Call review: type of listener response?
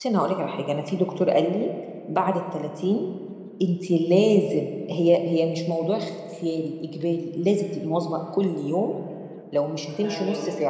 listening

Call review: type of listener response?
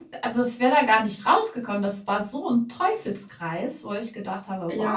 taking over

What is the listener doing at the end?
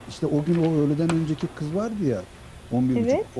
listening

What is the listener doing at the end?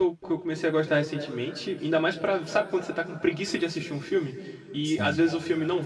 listening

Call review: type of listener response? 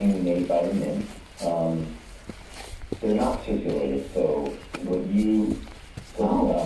listening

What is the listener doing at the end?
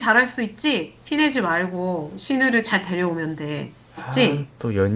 taking over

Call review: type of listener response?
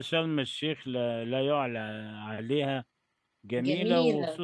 listening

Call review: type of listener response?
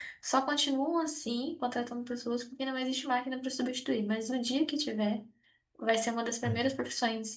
listening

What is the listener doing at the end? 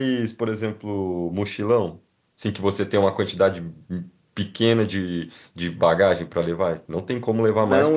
taking over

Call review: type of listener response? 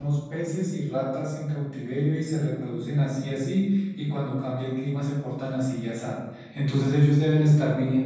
listening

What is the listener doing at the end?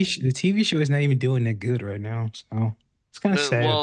taking over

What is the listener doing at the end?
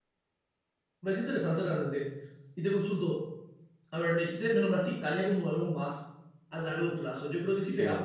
listening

